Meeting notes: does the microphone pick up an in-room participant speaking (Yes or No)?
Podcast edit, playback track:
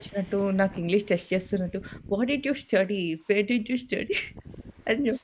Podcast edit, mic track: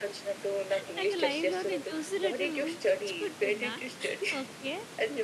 Yes